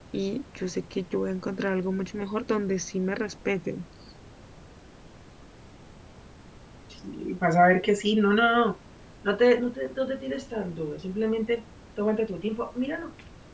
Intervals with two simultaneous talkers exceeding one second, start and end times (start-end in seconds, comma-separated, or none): none